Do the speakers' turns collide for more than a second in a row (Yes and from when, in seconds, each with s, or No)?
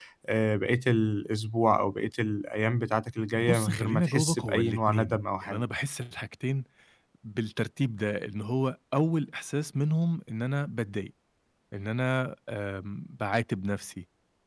Yes, from 3.4 s